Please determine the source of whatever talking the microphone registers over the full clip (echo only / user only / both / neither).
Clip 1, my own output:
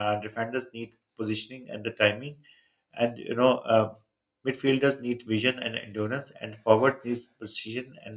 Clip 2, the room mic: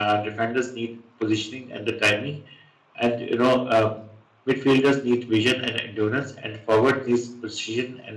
echo only